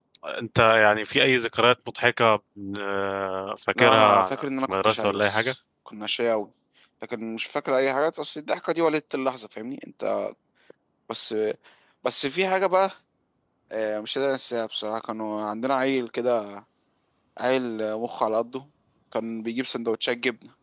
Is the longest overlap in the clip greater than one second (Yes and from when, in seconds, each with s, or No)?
Yes, from 3.8 s